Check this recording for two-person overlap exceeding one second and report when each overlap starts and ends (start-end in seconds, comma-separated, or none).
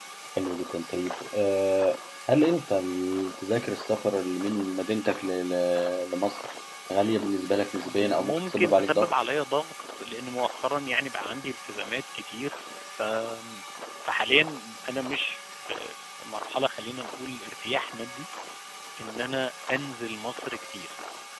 7.8-9.1